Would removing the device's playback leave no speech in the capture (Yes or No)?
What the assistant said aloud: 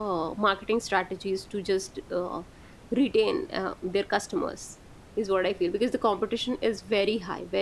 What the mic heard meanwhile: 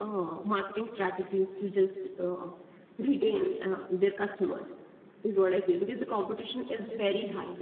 Yes